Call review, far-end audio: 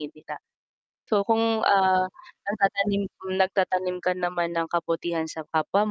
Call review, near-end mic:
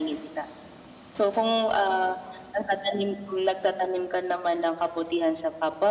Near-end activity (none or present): none